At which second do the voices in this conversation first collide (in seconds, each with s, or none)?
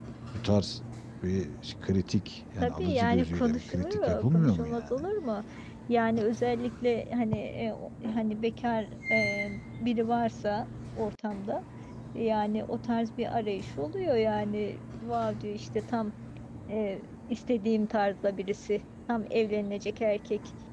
2.6 s